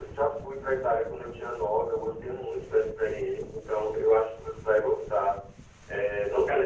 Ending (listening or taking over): listening